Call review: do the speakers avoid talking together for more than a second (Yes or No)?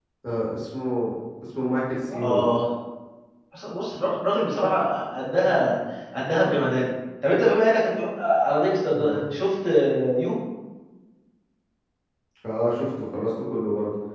Yes